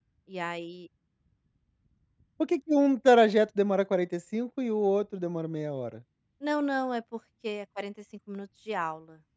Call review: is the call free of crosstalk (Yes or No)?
Yes